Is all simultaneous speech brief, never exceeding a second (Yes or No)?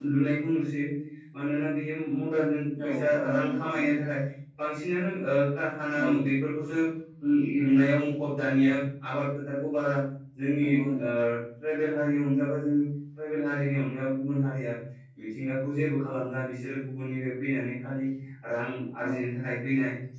No